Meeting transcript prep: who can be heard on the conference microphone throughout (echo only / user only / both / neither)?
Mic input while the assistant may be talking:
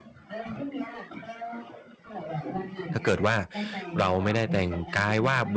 both